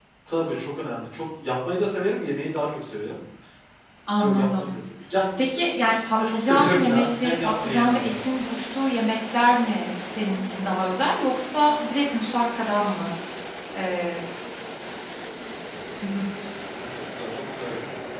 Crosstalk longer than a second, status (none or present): present